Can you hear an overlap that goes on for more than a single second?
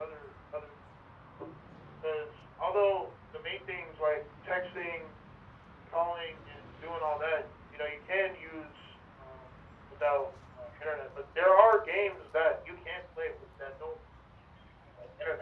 No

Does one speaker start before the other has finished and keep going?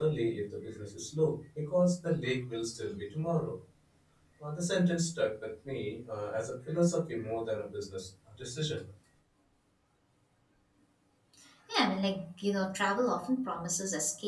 No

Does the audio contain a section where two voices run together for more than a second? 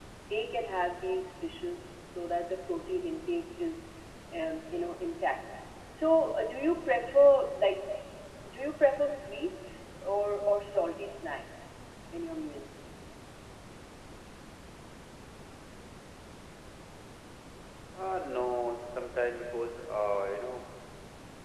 No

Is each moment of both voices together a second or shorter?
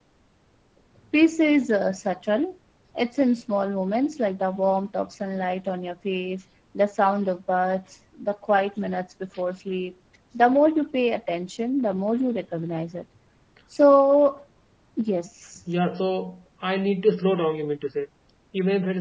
Yes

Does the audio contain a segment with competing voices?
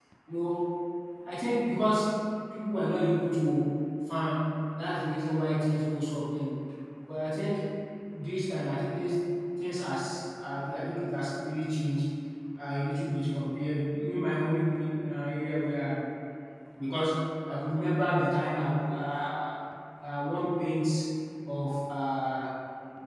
No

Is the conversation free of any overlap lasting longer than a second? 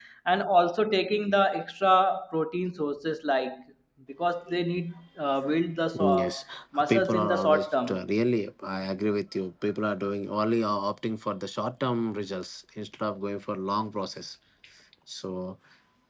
No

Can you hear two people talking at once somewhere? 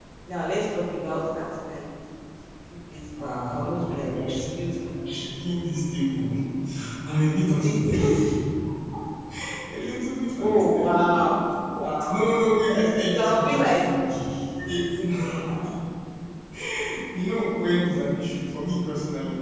Yes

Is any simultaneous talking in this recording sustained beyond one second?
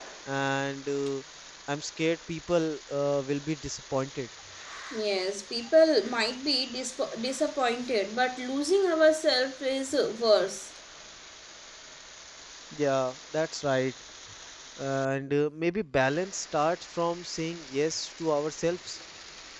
No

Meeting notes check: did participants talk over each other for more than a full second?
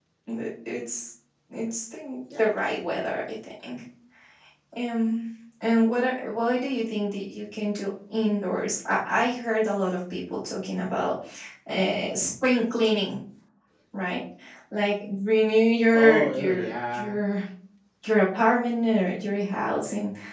Yes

